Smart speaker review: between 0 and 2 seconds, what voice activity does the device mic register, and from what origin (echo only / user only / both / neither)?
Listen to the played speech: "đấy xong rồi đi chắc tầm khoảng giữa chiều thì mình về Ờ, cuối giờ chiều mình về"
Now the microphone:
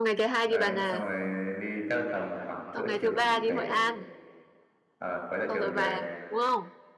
both